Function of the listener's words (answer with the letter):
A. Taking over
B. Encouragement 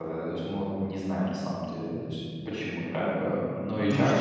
A